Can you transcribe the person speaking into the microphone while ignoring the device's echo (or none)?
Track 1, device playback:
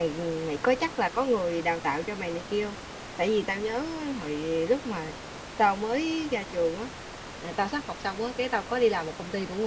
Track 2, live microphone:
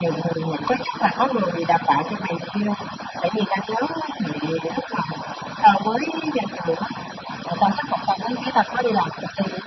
none